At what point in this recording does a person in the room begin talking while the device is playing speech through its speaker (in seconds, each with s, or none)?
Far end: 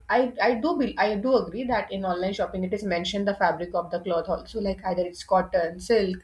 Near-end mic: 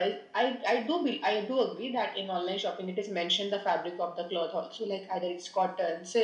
none